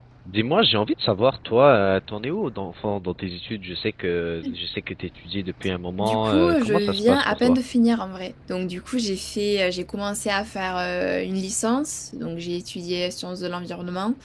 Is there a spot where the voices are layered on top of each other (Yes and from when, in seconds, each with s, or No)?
Yes, from 6.0 s